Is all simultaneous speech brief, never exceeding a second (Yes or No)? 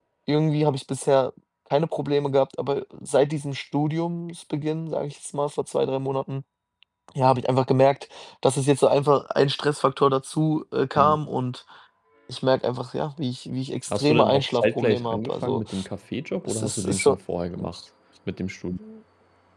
No